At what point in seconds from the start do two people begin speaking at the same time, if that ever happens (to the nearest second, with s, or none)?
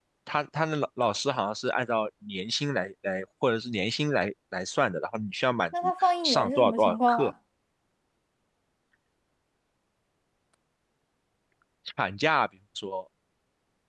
6 s